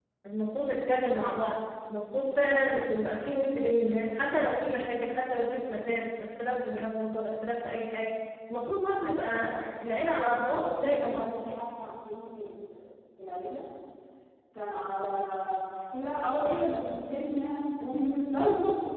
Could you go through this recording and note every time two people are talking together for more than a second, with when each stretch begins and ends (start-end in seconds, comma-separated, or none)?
10.2-11.5